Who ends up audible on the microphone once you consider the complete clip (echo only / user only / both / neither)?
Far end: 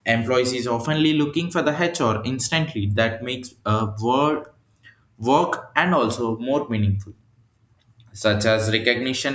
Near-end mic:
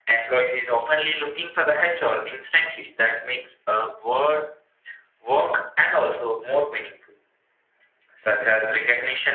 echo only